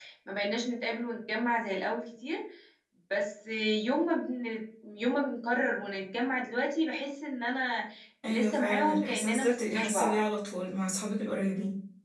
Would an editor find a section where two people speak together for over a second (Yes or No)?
Yes